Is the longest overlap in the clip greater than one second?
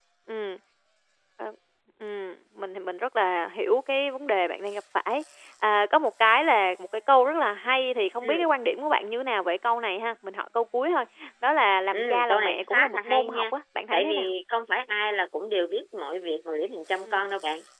Yes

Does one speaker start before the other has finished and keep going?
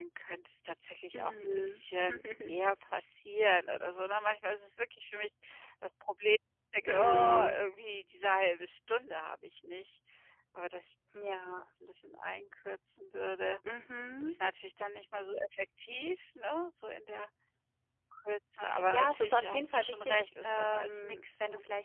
Yes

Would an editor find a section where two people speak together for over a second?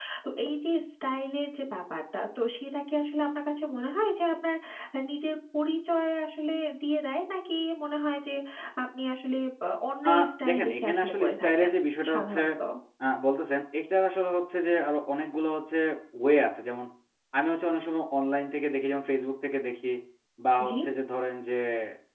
Yes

